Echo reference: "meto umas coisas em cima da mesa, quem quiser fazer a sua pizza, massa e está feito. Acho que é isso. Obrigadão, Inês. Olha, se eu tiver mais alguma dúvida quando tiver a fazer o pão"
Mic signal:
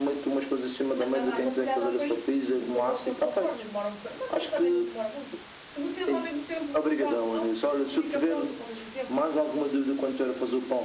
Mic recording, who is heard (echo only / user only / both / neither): both